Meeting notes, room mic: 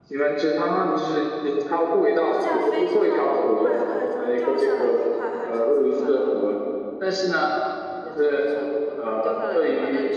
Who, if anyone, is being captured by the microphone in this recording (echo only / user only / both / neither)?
echo only